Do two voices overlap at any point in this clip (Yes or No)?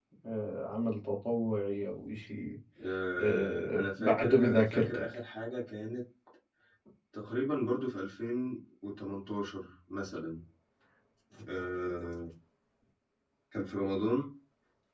Yes